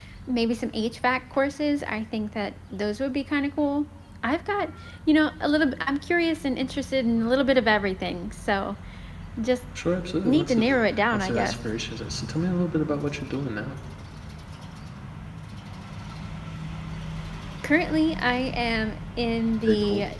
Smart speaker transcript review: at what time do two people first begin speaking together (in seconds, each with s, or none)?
10.2 s